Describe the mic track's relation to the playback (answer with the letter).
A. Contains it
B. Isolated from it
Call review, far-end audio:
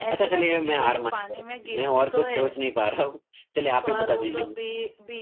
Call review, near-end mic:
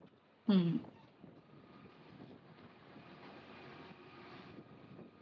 B